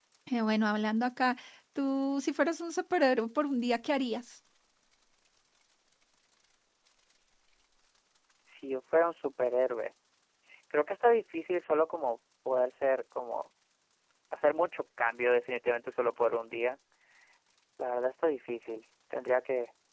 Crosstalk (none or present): none